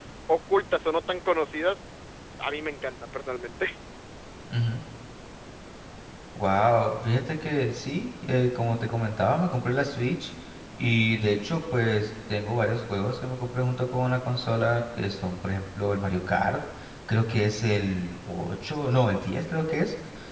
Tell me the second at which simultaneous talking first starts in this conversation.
none

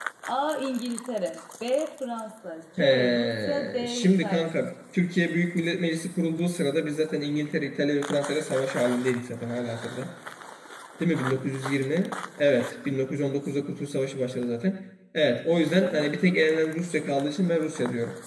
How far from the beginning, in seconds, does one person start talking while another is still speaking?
2.8 s

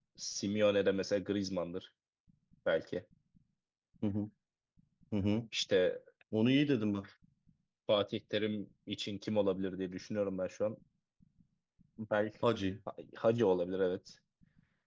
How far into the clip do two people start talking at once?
none

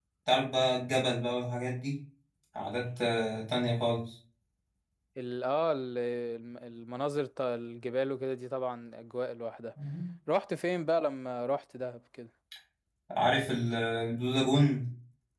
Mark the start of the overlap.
none

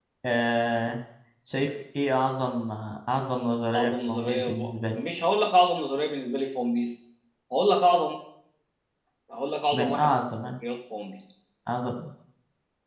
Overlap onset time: 3.7 s

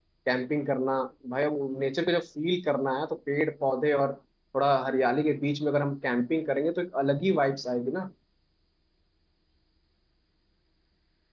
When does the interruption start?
none

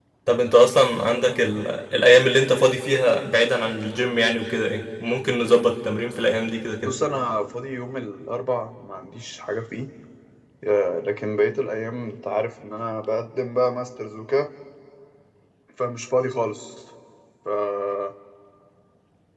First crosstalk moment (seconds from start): none

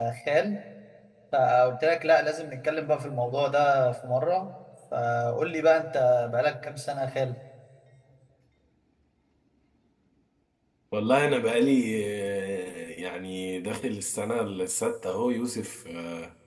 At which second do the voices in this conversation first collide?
none

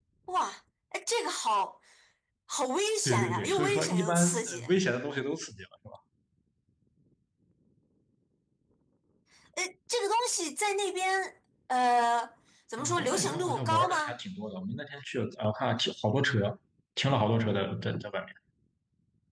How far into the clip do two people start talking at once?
3.0 s

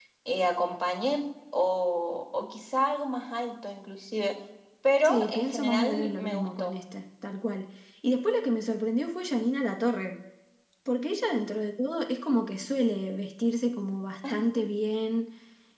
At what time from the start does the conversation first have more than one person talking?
5.0 s

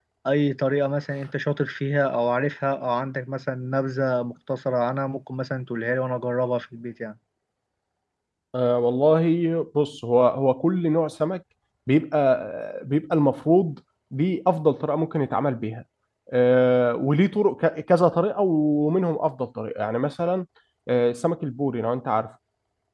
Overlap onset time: none

